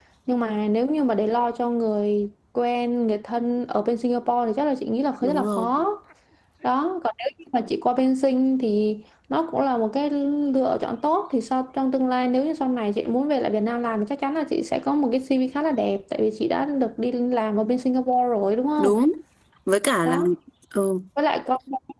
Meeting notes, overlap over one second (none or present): none